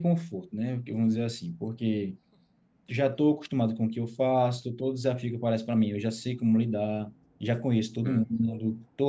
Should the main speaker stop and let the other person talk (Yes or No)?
No